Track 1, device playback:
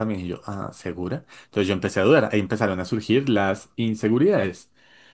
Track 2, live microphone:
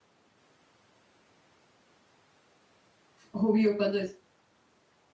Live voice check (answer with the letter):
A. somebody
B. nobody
A